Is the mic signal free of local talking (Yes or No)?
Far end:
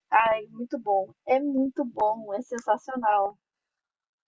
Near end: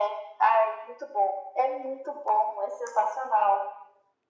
Yes